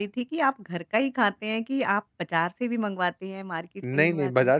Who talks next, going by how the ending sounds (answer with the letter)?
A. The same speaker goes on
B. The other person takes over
B